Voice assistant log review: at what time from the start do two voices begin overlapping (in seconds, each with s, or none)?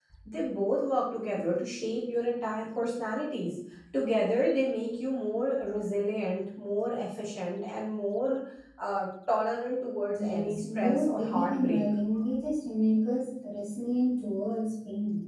10.2 s